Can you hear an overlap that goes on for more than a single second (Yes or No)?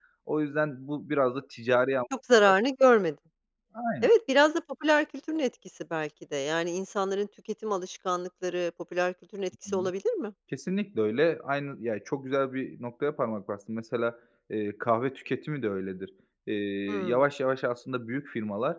No